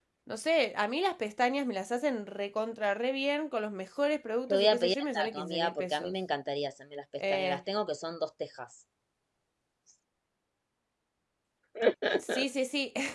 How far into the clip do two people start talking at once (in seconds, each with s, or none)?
4.5 s